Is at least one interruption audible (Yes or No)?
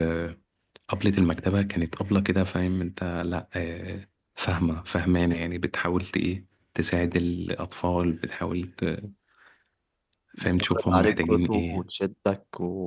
Yes